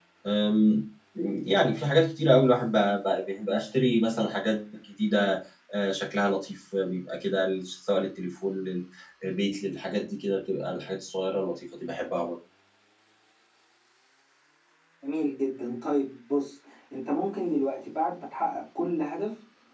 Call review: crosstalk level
none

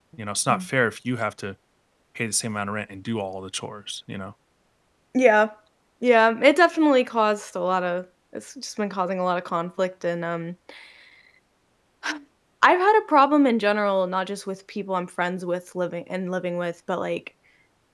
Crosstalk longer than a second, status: none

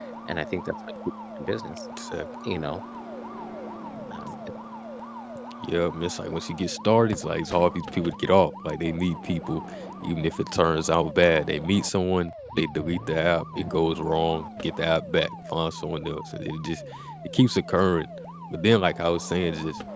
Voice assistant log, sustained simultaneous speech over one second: none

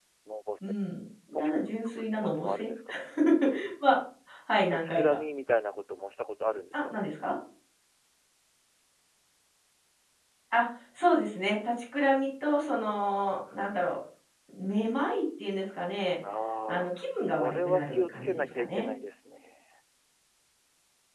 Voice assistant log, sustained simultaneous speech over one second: present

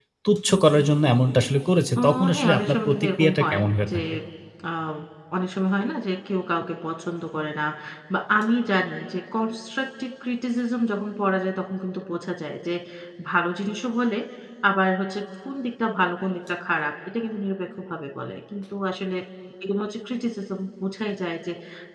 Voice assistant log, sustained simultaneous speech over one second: present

